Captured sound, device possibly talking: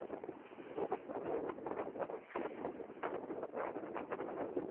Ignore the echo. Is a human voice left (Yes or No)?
No